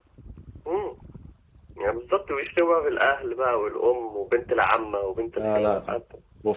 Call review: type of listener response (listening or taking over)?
taking over